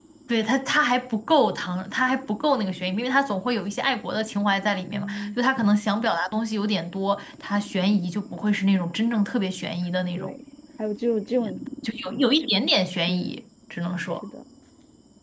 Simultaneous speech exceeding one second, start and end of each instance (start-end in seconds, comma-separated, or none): none